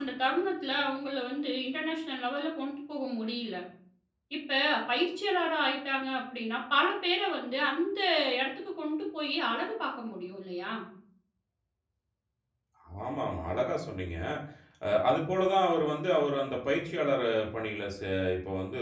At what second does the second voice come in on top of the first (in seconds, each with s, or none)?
none